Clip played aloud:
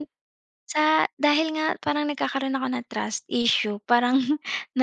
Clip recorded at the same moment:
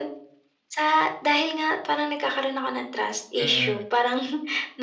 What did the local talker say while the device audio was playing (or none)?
Mm.